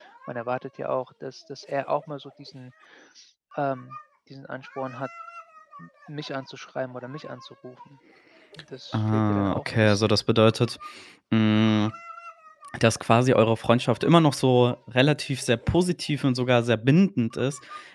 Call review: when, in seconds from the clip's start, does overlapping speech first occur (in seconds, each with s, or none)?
8.9 s